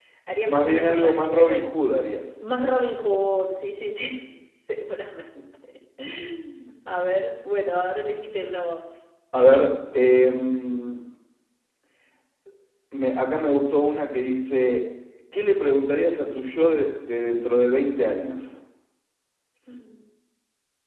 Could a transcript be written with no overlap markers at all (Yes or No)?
No